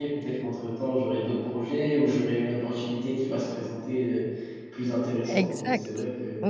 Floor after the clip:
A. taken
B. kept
A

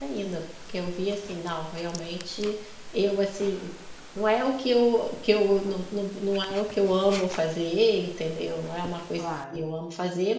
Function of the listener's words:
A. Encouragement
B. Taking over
A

